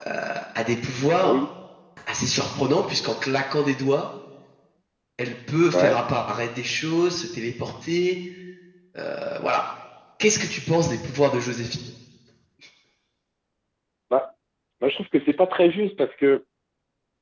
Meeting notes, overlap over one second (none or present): none